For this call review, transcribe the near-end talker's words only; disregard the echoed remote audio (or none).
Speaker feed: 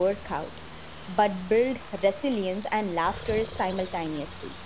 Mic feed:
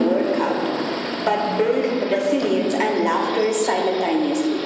none